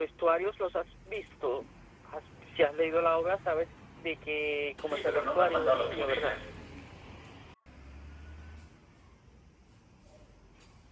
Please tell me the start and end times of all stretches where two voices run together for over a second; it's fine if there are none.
4.8-6.4

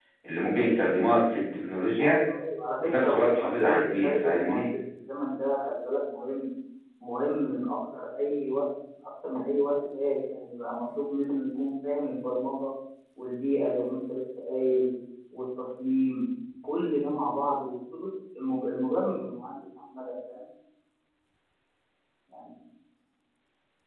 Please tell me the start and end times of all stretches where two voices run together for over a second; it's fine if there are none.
2.8-4.7

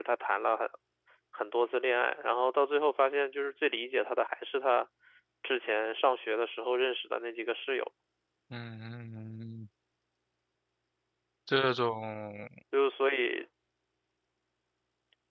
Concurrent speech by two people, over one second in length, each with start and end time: none

